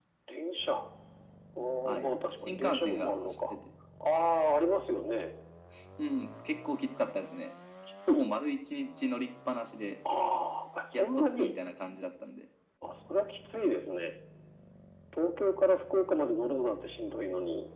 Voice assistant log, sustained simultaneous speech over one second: present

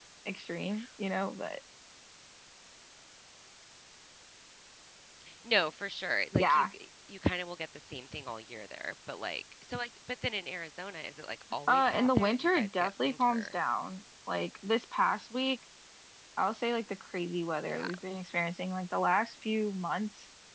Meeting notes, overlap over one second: present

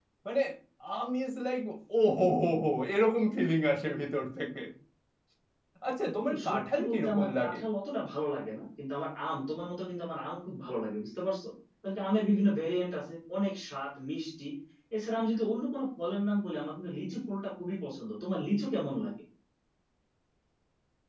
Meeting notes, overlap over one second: present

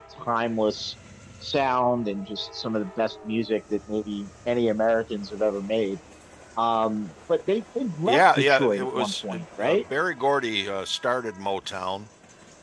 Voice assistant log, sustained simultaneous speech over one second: present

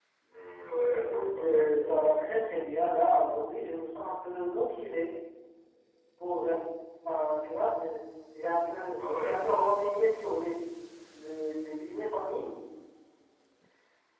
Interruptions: present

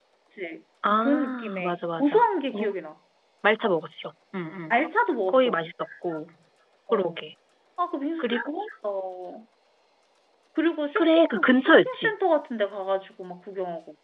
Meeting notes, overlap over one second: present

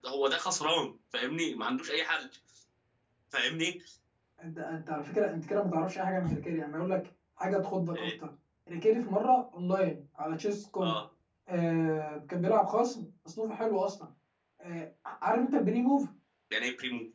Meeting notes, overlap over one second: none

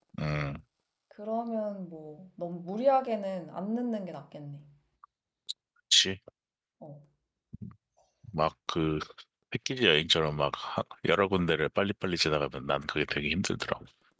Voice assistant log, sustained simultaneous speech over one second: none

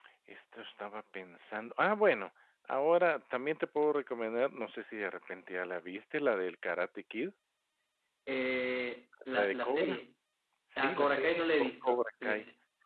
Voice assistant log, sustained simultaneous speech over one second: present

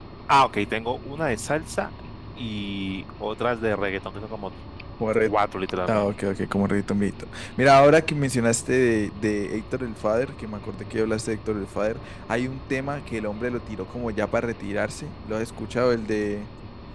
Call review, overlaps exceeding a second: none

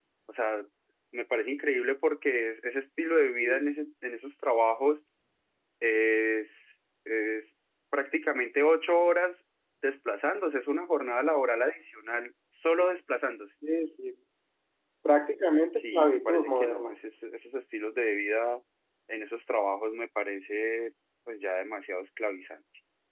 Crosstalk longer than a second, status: present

